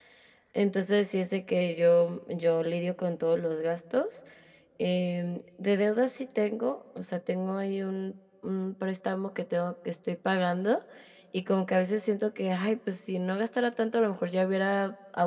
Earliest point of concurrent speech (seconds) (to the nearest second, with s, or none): none